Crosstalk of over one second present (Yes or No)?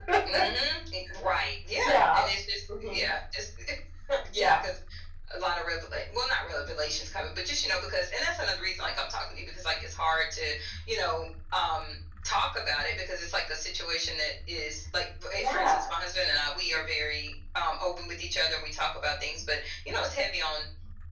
No